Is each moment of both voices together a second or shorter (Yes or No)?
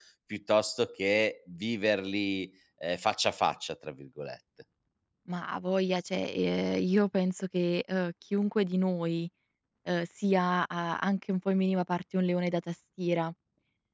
Yes